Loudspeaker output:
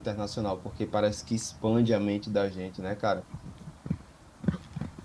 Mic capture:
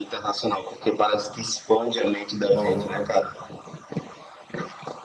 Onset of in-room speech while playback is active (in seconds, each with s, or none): 2.5 s